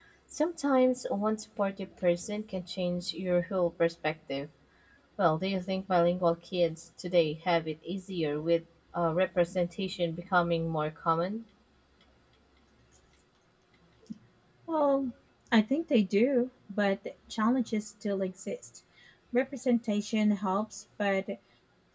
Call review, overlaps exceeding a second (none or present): none